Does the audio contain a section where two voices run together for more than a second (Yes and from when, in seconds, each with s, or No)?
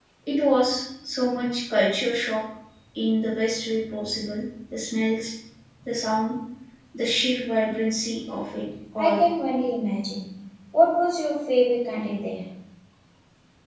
No